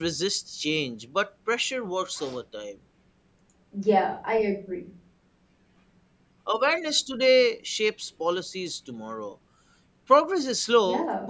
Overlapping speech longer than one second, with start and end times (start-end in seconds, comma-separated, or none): none